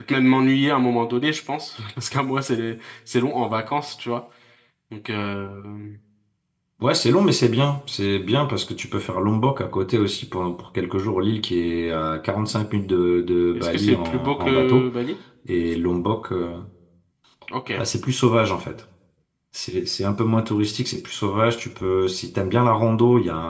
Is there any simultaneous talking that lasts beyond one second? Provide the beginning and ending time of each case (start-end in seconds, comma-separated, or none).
13.5-14.9